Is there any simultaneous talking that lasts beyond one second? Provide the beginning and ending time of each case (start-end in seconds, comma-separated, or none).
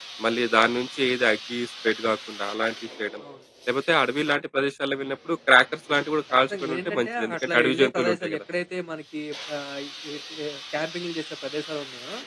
6.3-8.4